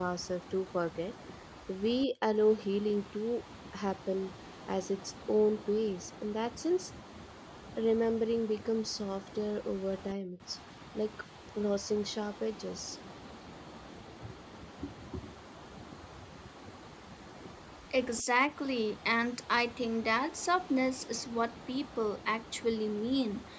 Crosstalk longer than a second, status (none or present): none